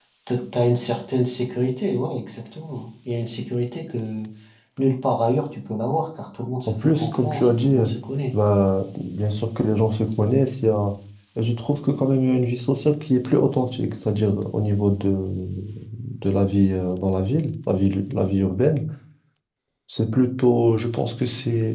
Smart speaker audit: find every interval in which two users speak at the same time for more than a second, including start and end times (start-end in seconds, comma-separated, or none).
6.7-7.9